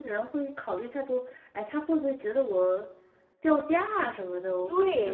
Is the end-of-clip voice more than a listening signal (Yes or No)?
Yes